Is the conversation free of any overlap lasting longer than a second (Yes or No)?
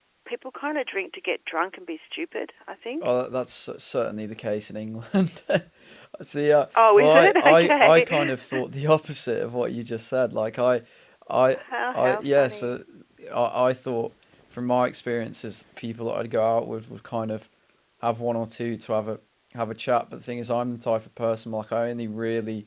No